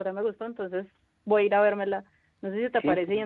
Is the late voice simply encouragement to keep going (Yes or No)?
Yes